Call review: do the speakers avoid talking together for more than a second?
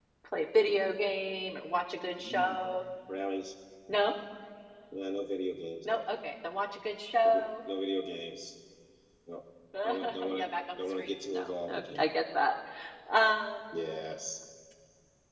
No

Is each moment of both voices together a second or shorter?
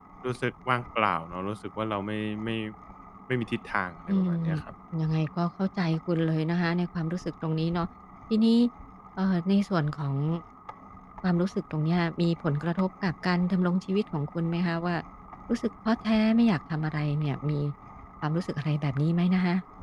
Yes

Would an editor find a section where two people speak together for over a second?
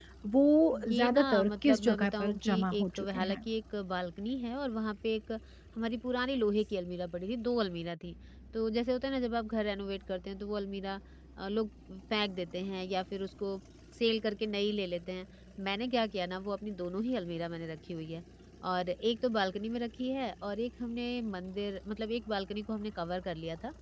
Yes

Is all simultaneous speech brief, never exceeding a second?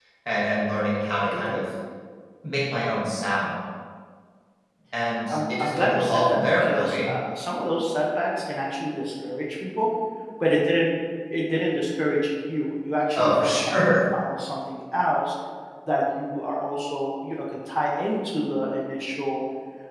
No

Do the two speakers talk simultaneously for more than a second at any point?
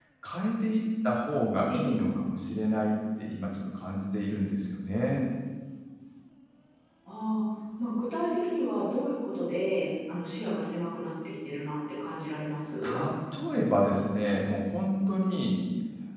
No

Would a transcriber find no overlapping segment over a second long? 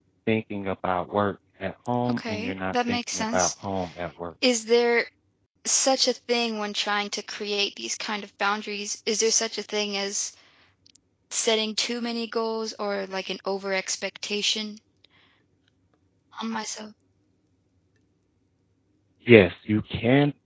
No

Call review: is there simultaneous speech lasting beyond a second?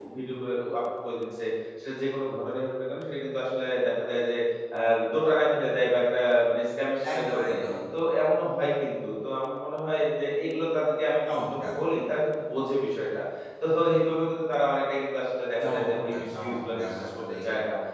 Yes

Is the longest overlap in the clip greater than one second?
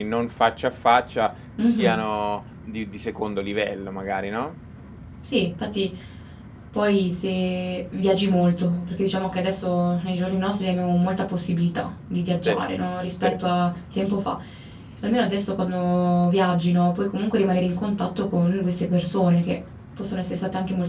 No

